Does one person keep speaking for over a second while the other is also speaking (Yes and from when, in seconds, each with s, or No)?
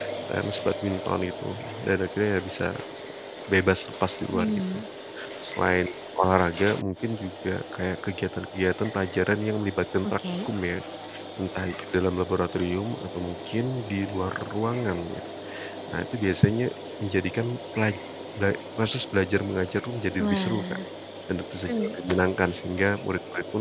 No